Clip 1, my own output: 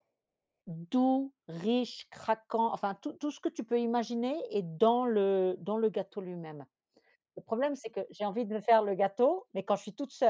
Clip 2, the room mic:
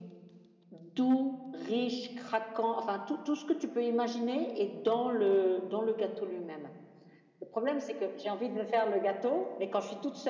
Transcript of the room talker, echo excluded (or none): none